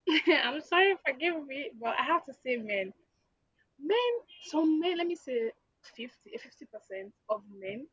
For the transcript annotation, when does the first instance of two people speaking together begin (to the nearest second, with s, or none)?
none